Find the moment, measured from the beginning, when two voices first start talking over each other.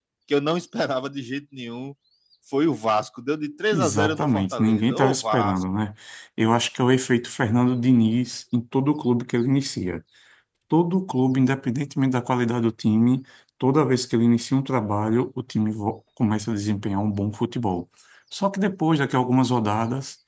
3.7 s

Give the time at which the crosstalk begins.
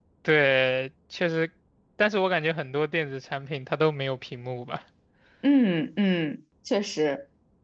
none

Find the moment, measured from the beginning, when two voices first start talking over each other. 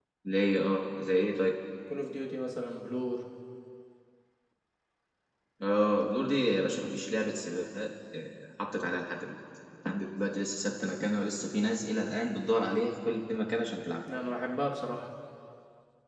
none

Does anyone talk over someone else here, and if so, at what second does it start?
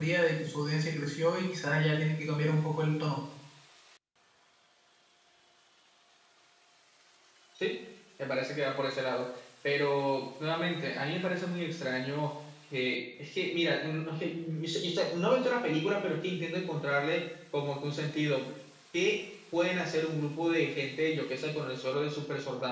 none

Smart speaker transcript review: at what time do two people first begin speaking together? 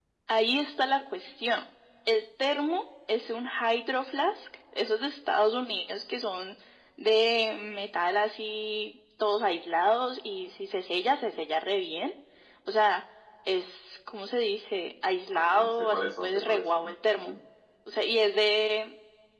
15.4 s

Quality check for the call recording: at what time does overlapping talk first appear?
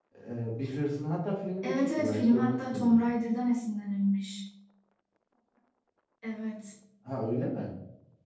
1.6 s

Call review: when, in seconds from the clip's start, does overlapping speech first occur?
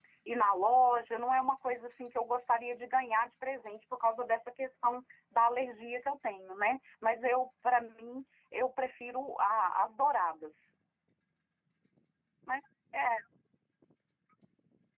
none

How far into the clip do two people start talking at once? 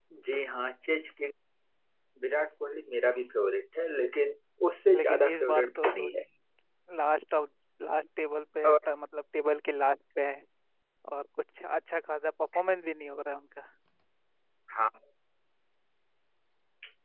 4.9 s

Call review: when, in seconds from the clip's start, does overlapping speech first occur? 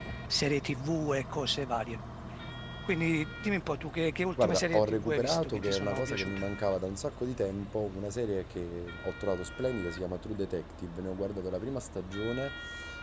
4.4 s

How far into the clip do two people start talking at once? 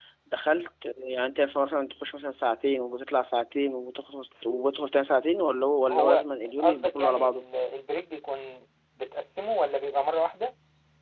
5.9 s

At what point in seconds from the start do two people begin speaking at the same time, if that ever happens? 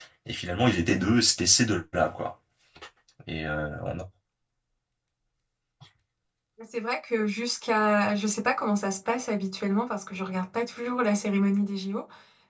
none

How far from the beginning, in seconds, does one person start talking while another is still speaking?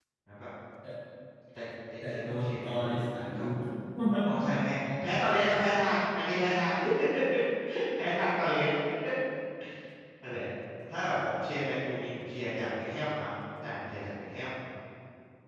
2.1 s

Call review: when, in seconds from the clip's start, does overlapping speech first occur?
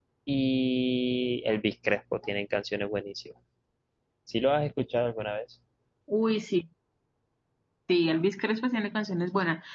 none

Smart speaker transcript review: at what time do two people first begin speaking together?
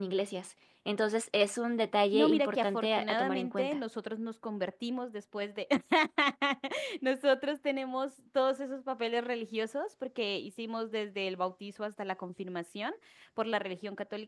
2.1 s

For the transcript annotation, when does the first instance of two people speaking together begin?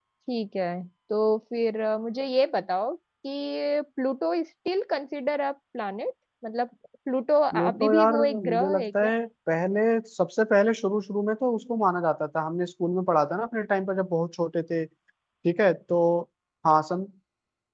7.5 s

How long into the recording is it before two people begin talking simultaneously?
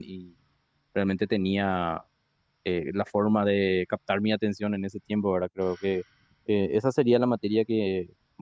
none

